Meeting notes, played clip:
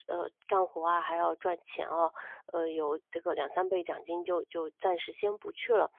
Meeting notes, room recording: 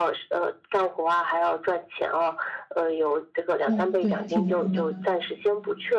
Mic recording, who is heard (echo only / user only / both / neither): both